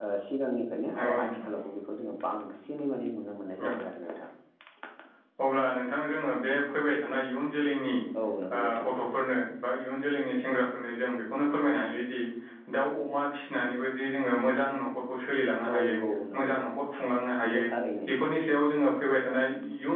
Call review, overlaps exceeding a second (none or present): none